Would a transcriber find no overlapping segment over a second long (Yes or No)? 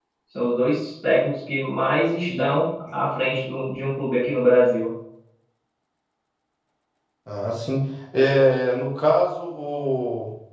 Yes